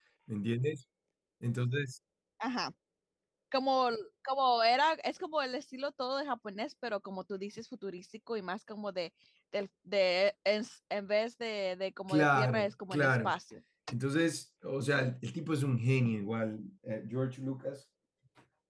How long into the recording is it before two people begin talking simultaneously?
12.1 s

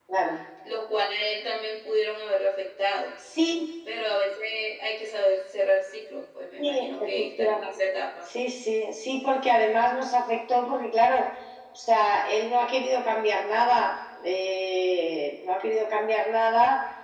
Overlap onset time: 6.6 s

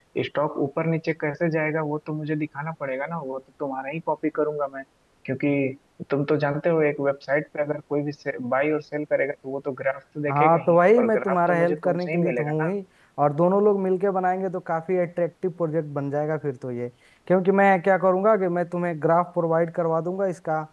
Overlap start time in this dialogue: 10.3 s

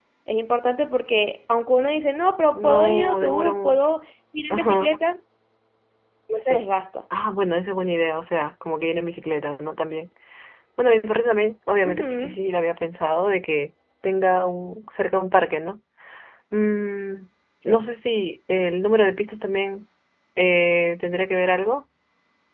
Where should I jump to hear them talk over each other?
2.5 s

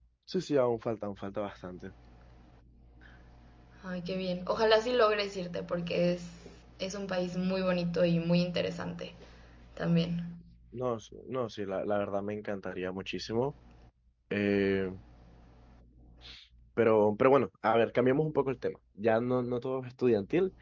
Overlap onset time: none

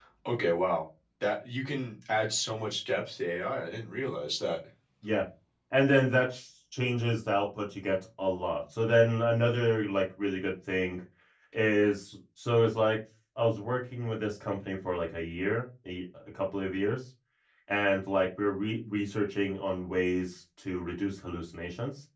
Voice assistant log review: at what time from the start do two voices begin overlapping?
none

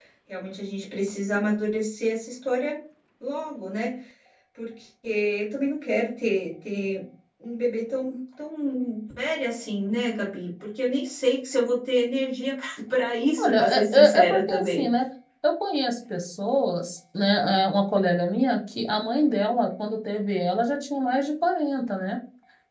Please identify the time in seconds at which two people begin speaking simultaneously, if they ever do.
13.4 s

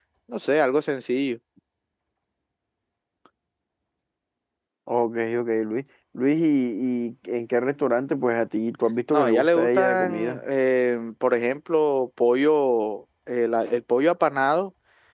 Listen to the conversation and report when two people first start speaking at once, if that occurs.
9.1 s

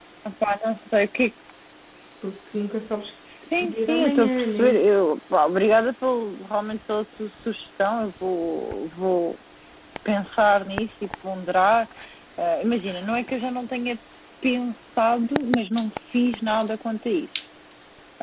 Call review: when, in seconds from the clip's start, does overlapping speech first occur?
3.6 s

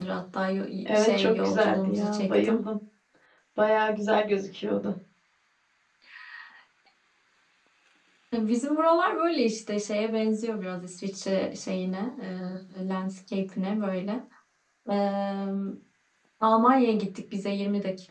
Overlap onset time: 0.9 s

